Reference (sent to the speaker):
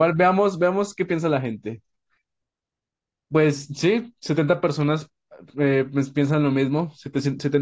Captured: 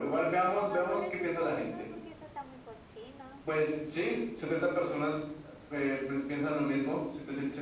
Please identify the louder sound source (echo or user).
echo